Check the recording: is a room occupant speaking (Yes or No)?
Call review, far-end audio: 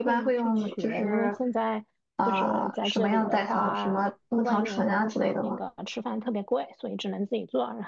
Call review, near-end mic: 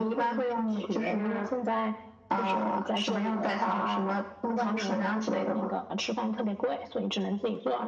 No